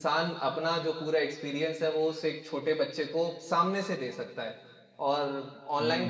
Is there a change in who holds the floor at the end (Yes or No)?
No